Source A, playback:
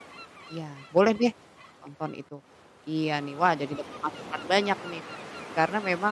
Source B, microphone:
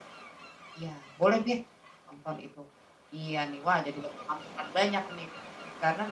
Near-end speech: none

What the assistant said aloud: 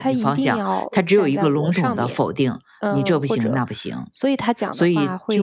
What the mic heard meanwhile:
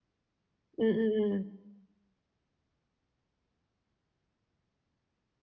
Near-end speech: present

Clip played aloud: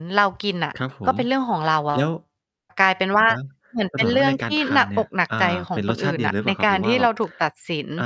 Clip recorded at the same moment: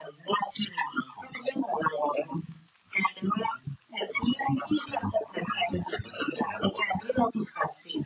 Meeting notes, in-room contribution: none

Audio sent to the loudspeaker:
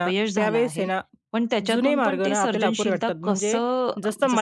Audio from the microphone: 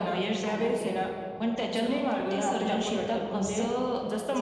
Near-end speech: none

